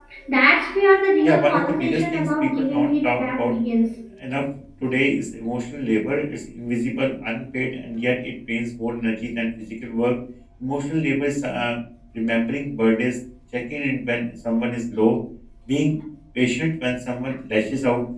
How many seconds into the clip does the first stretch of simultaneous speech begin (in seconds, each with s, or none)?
1.2 s